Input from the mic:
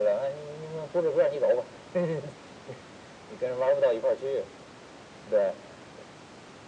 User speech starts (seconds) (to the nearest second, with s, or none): none